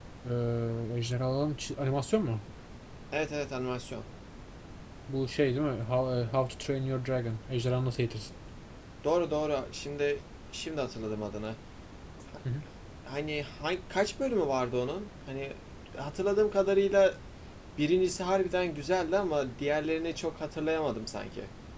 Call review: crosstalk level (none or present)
none